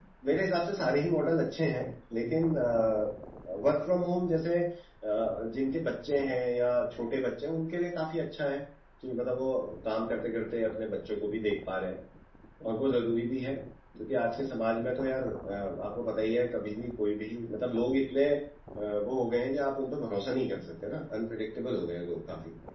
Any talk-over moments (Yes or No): No